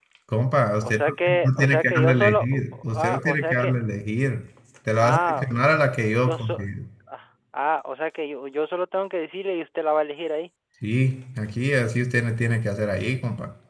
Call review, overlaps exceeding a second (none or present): present